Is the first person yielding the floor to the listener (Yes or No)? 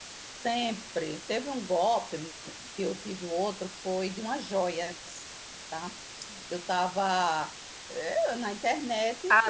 Yes